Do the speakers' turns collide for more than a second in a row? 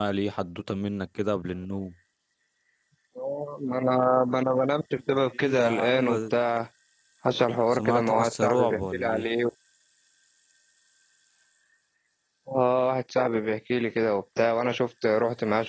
Yes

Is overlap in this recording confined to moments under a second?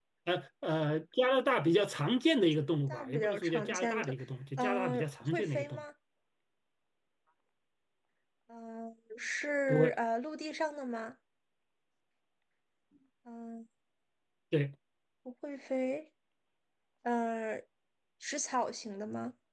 No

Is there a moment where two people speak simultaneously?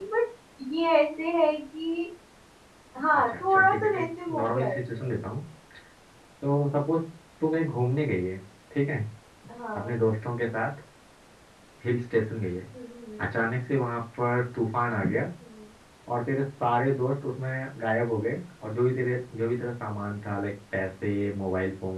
Yes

